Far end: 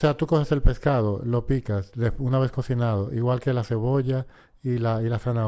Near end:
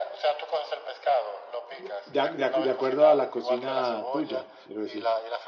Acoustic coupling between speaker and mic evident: Yes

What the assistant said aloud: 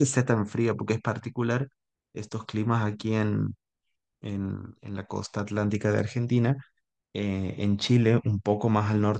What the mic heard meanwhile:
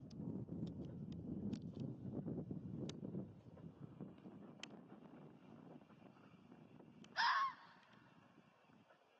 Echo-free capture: Yes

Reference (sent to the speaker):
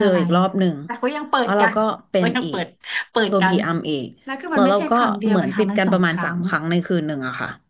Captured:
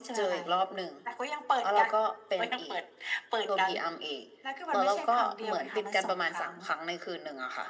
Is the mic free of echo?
No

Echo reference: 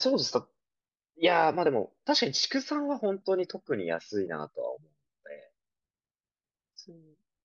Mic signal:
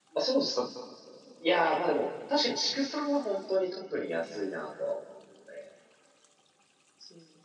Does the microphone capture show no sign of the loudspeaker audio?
No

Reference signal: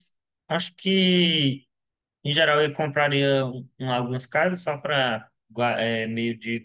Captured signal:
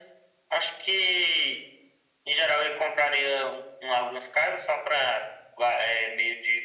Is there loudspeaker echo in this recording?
Yes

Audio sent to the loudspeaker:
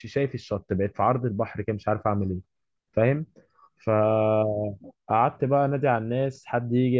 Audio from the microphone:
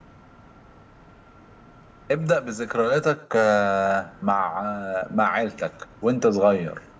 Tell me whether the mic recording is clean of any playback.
Yes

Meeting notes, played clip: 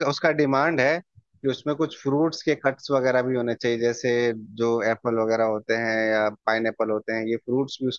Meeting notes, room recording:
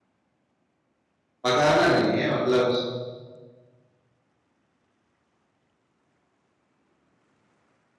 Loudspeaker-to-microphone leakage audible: No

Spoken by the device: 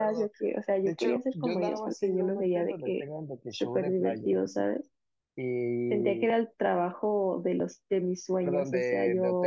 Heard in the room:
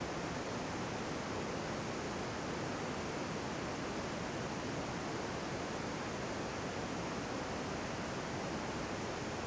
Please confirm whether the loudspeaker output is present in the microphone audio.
No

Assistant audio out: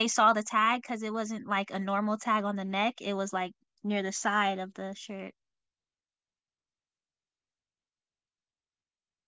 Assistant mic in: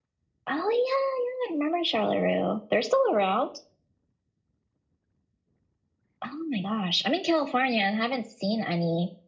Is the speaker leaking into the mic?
No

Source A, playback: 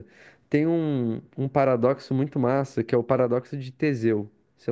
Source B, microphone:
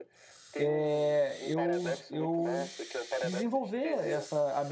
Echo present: Yes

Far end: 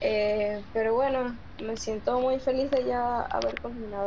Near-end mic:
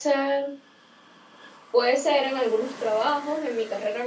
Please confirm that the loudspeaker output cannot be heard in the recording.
Yes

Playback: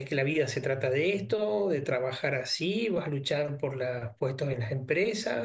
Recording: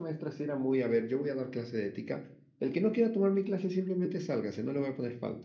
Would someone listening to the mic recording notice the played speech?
No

